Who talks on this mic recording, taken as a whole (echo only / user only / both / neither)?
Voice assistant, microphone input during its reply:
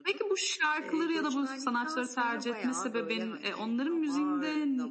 echo only